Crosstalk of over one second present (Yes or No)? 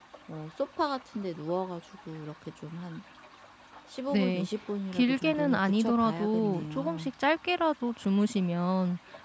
Yes